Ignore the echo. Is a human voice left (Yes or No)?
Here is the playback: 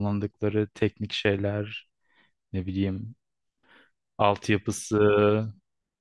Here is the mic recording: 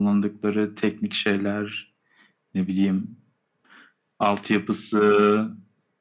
No